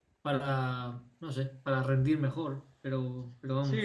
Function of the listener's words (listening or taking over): taking over